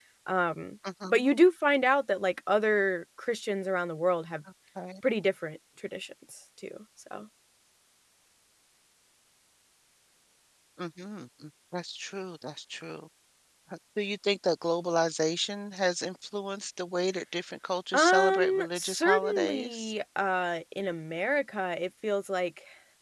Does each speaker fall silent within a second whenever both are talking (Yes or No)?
No